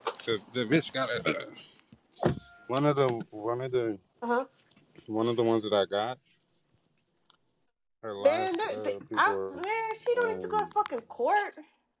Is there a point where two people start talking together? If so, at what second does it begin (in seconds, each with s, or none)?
8.2 s